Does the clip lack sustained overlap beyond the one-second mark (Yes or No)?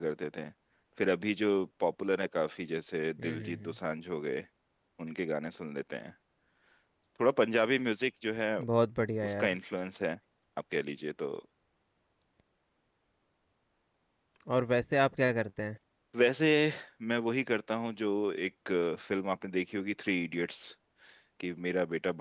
Yes